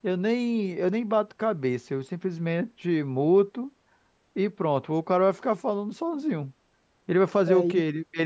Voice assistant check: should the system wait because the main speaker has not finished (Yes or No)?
Yes